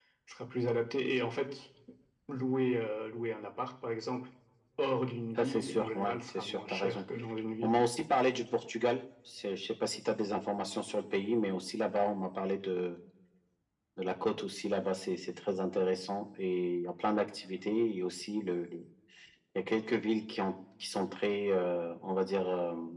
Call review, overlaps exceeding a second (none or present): present